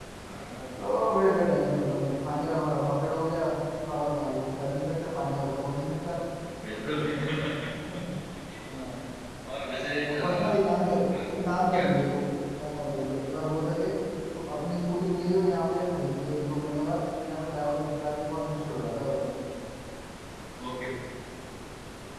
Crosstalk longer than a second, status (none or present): none